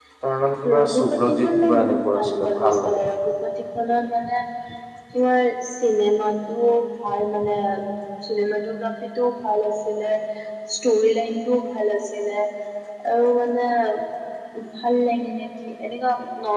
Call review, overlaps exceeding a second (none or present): present